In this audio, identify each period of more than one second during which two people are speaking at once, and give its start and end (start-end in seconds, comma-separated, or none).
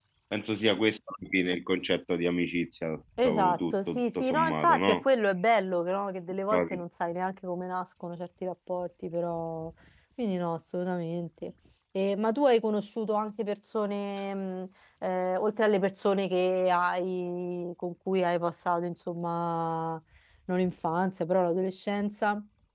3.2-5.0